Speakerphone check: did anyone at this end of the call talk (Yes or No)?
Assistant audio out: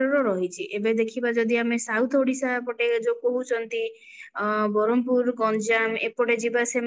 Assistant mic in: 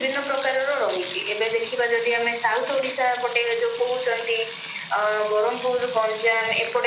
No